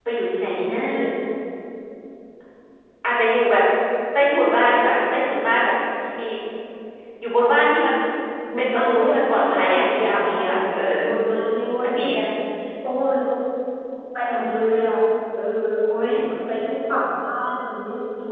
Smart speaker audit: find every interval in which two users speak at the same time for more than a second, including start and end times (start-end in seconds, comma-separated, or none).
8.6-10.6